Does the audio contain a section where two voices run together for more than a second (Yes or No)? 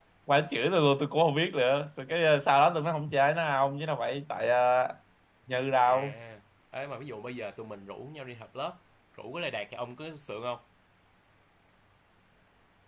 No